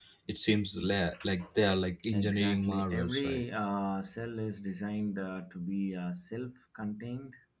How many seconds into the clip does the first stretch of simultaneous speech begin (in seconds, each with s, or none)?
2.1 s